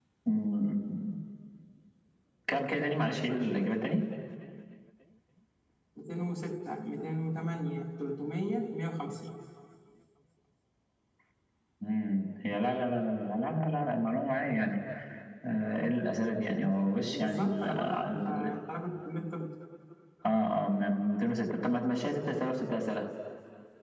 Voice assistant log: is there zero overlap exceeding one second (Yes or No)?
No